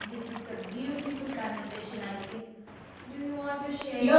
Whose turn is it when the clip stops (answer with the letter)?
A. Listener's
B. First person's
A